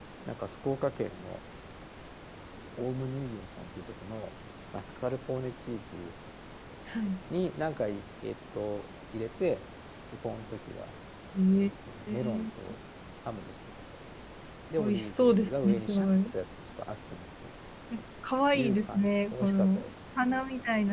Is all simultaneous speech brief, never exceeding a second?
No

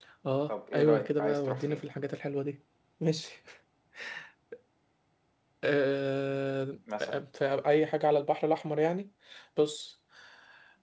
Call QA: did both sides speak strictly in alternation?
No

